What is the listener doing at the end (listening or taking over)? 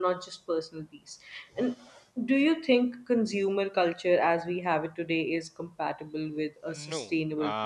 taking over